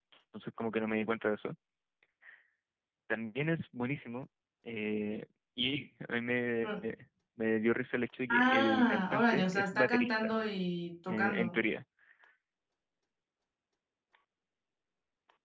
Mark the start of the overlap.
8 s

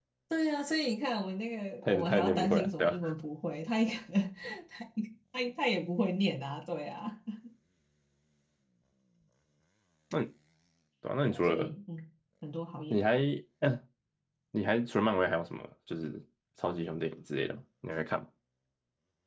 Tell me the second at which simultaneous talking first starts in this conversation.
2 s

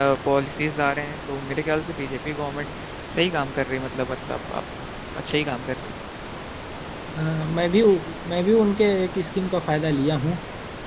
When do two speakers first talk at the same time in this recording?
none

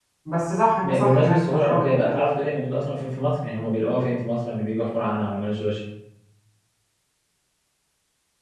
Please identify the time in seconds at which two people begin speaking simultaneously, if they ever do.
1 s

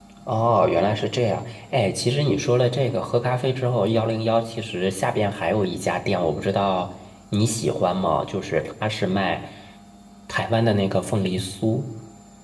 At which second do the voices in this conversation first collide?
none

